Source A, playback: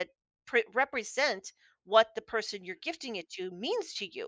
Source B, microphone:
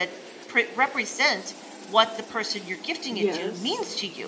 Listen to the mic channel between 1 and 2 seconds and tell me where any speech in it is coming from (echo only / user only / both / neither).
echo only